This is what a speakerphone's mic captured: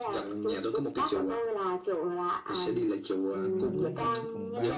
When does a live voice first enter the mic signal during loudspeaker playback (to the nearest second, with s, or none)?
3 s